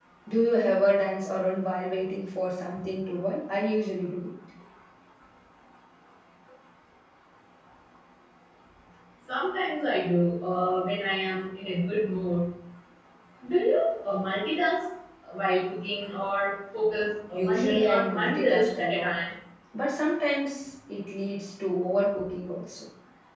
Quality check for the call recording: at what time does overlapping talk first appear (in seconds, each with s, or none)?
17.3 s